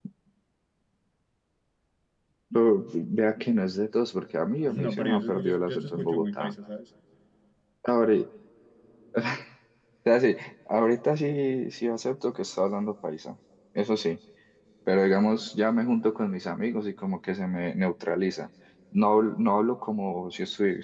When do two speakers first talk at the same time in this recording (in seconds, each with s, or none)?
4.8 s